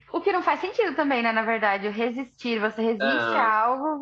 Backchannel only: Yes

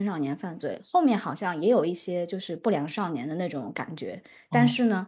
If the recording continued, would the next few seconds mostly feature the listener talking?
No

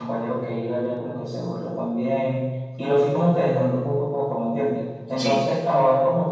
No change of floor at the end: Yes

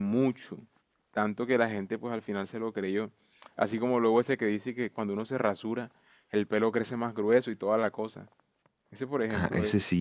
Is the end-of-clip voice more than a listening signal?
Yes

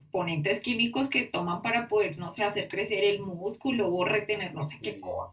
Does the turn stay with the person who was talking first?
Yes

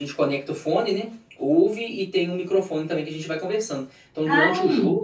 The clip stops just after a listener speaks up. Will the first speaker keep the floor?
Yes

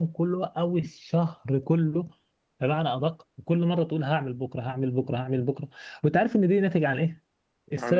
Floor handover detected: No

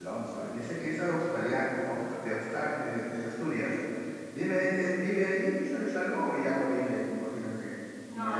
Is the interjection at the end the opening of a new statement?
Yes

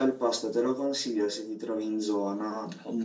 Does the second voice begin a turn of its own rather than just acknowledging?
Yes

